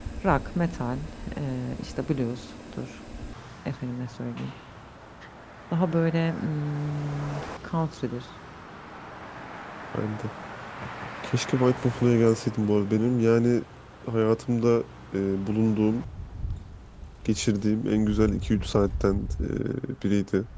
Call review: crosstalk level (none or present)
none